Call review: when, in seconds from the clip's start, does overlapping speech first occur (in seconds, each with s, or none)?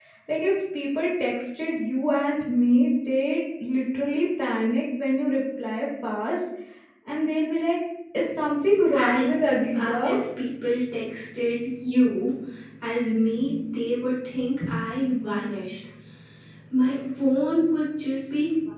8.9 s